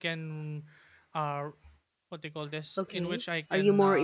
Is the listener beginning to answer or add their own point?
Yes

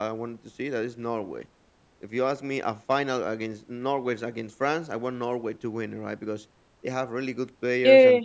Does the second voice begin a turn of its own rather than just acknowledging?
No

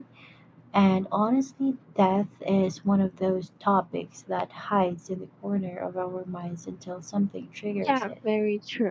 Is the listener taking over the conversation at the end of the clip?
Yes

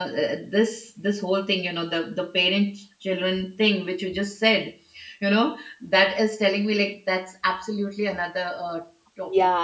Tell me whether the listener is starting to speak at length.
Yes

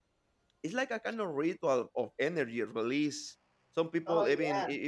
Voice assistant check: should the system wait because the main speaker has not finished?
Yes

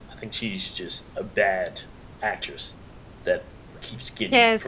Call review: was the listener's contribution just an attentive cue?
No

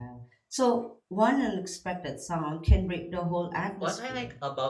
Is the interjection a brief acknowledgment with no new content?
No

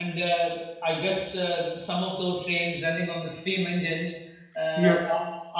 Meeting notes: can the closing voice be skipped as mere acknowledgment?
Yes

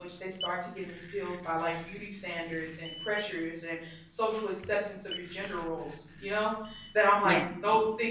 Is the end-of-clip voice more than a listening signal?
No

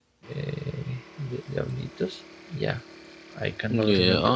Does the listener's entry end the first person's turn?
Yes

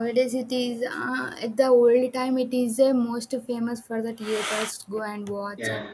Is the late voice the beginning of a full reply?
No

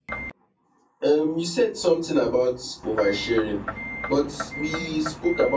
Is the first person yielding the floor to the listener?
No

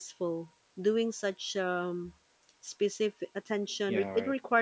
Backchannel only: Yes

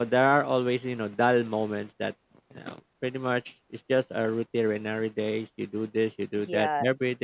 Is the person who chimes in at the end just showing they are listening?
No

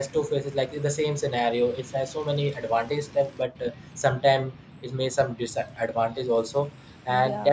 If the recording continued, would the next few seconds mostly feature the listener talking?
No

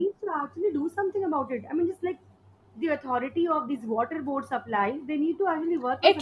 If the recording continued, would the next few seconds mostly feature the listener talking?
Yes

